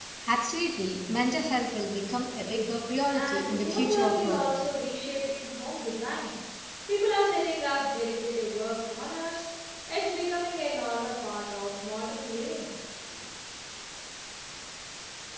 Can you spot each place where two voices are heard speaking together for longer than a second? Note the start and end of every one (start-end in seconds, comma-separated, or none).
3.1-4.4